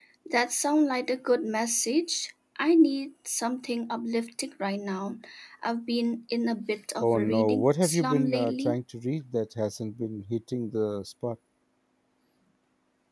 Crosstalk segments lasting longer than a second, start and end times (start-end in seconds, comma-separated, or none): 7.0-8.8